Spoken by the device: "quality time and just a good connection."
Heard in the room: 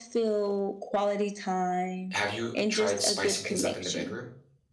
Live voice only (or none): have you tried spicing things up in the bedroom?